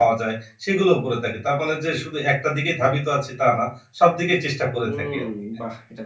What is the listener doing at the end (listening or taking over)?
taking over